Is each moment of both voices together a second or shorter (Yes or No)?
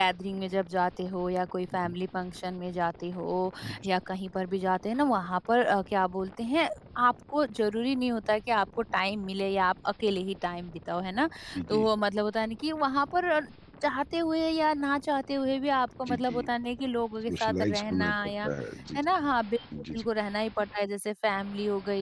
No